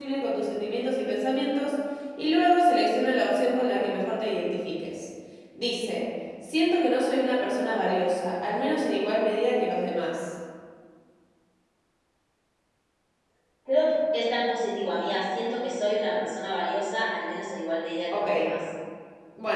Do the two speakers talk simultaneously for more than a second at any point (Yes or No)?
No